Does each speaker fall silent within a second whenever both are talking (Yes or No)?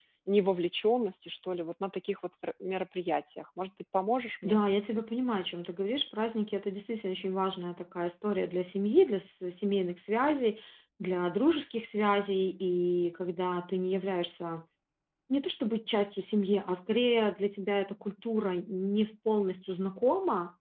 Yes